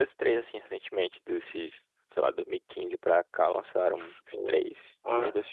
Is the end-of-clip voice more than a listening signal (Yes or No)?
Yes